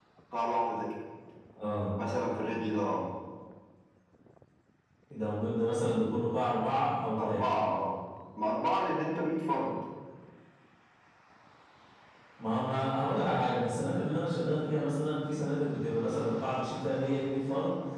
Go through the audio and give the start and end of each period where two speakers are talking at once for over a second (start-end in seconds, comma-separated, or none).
none